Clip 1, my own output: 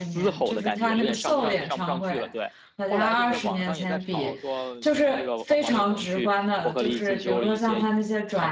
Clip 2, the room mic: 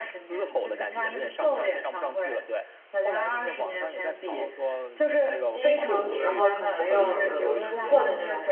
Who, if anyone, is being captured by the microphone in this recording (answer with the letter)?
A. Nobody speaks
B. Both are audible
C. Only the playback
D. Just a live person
B